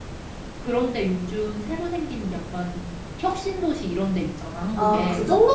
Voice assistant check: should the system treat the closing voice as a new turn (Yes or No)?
Yes